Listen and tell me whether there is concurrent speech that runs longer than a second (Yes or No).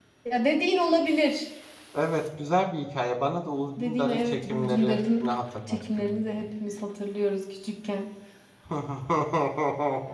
Yes